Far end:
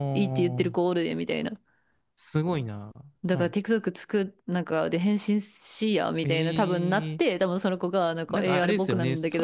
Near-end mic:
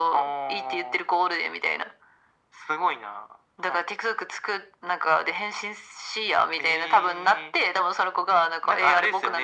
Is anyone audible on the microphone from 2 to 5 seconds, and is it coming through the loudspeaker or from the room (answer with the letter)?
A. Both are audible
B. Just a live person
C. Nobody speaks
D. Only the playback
D